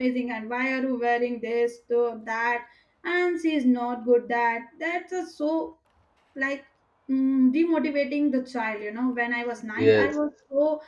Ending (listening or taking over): listening